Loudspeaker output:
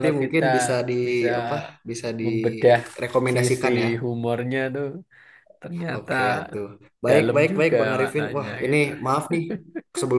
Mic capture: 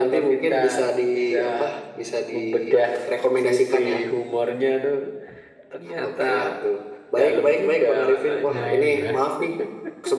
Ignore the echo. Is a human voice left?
Yes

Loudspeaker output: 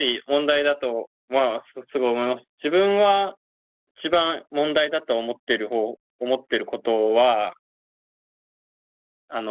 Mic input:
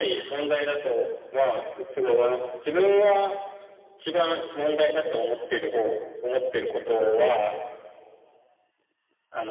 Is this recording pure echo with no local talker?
Yes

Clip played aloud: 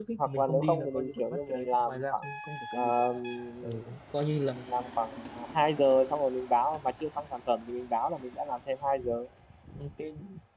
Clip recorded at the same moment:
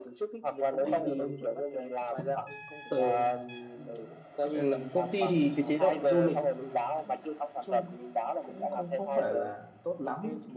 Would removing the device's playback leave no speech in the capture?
No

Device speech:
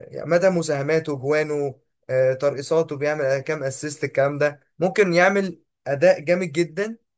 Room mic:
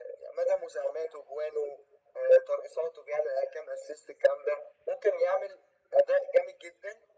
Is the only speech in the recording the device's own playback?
Yes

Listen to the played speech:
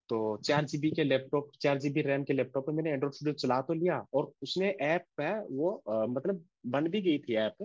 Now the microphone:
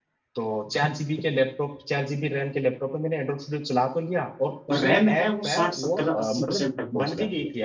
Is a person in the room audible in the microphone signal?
Yes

